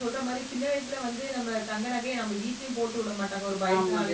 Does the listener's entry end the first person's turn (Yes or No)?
No